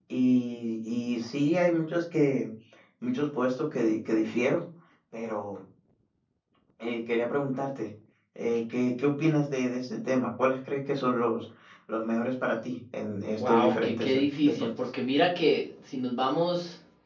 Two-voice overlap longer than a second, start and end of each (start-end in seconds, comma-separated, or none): 13.3-14.7